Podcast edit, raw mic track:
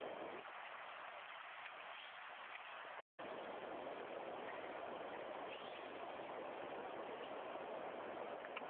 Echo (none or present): none